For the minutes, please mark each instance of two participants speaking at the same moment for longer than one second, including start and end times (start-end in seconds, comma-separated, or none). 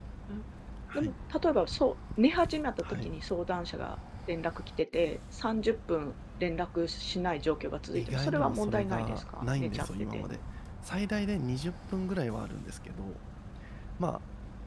8.0-10.2